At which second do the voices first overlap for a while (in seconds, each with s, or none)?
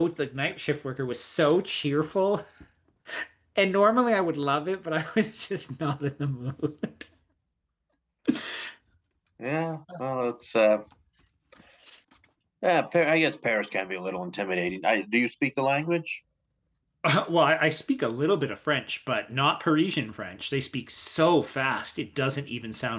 none